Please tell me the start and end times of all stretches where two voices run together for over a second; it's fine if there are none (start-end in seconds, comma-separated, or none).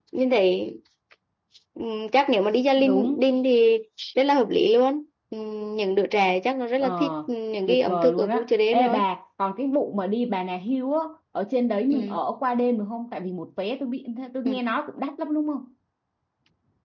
7.7-9.0